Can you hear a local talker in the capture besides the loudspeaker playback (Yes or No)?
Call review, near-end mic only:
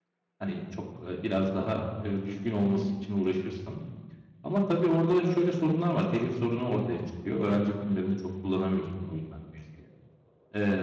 Yes